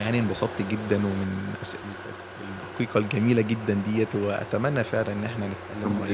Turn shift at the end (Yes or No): No